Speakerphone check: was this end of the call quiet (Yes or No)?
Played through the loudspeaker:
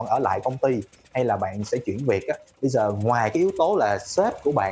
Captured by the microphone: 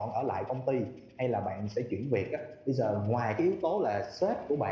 Yes